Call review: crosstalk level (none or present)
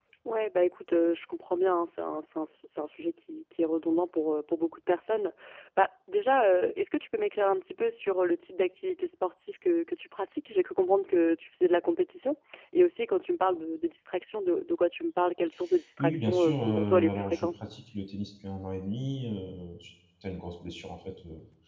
present